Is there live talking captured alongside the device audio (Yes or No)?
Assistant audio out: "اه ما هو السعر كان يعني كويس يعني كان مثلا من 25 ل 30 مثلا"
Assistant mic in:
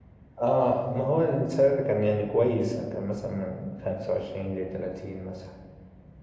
No